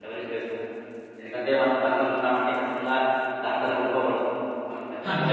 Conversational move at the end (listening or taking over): listening